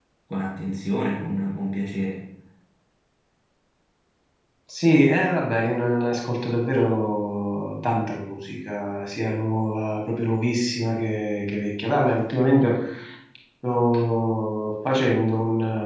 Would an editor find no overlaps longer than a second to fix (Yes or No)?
Yes